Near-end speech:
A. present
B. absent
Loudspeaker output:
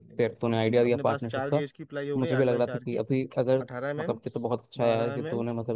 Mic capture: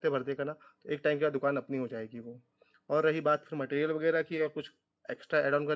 A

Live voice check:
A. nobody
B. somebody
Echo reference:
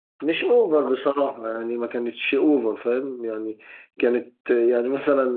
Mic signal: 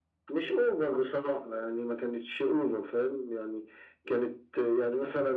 A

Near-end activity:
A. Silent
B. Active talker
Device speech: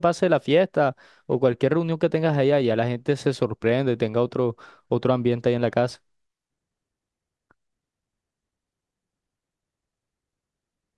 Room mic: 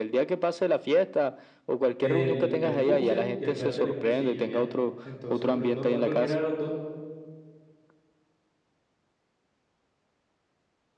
B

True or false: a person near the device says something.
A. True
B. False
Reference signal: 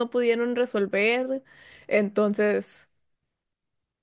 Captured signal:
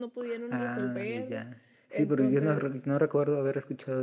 A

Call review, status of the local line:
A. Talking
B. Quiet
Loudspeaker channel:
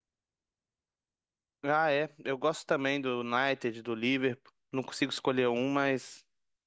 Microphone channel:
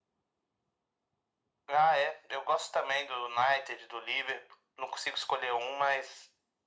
B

